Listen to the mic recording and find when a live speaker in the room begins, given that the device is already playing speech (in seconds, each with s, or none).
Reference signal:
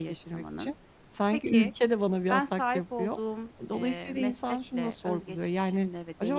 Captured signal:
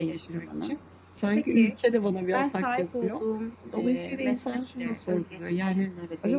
none